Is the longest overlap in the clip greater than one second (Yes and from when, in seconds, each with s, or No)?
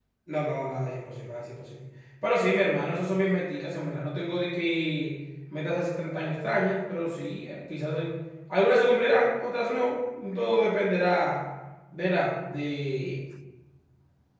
No